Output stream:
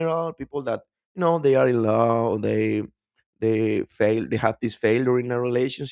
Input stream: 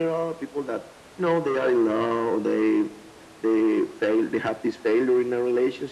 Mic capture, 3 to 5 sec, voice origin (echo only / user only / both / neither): echo only